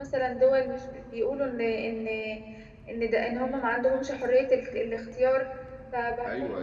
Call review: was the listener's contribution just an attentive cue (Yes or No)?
No